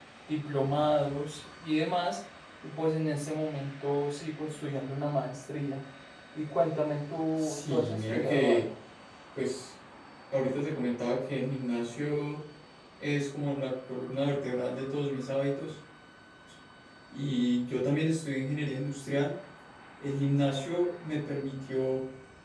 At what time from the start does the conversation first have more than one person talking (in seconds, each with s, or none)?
7.4 s